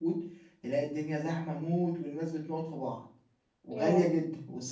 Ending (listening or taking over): listening